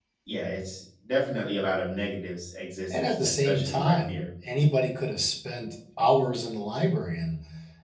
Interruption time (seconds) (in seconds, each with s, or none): 2.9 s